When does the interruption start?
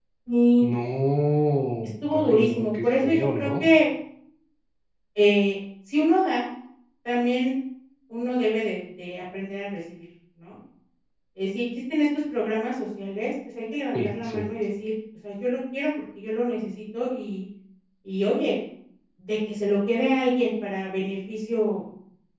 2.1 s

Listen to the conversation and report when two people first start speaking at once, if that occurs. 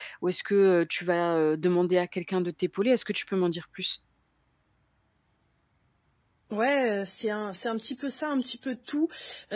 none

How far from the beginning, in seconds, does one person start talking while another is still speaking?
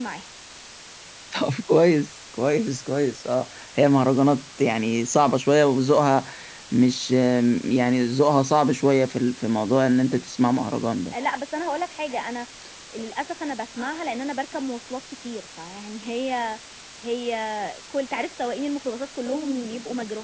none

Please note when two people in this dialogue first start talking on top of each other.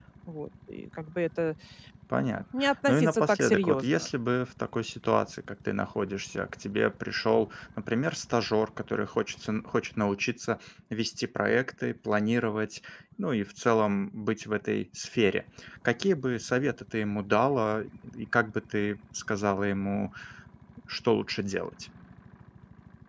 2.2 s

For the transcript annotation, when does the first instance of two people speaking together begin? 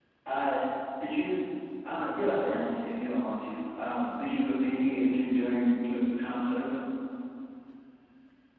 none

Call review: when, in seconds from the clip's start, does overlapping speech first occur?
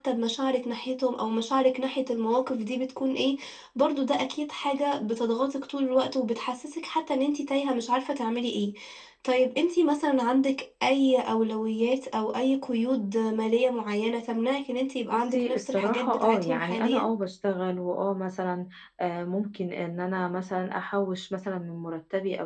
15.1 s

